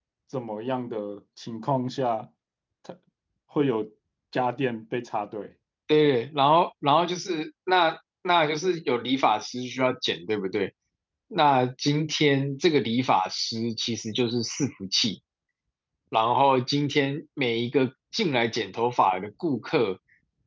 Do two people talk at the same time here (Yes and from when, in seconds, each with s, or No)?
No